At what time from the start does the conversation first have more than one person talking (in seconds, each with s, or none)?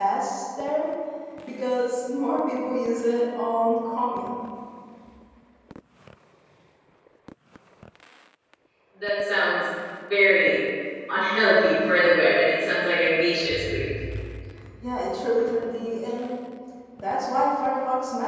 none